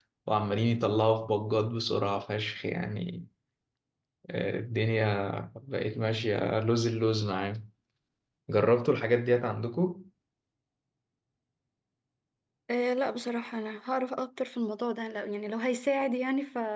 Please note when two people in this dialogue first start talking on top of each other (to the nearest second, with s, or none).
none